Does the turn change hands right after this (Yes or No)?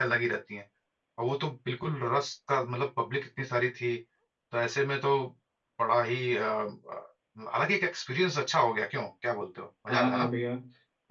Yes